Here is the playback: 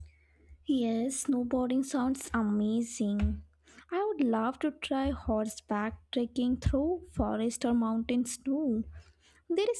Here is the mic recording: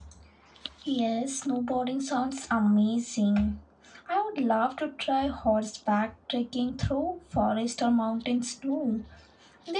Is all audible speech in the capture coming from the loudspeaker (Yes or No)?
Yes